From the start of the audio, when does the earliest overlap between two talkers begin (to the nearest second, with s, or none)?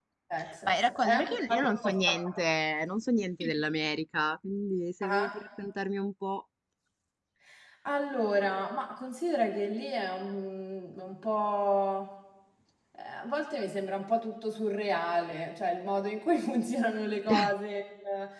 1 s